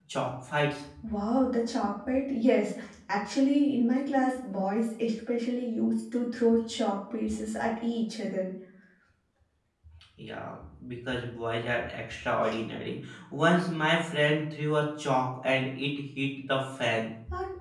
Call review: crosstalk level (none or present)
none